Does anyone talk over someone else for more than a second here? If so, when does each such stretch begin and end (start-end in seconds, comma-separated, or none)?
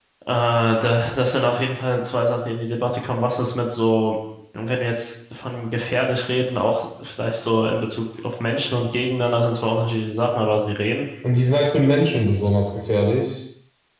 none